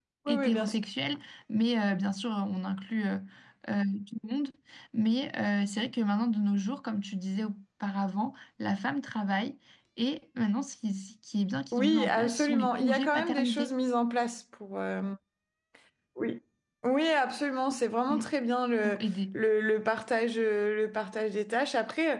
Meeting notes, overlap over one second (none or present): present